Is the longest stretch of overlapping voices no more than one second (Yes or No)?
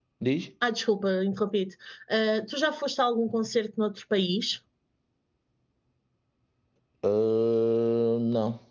Yes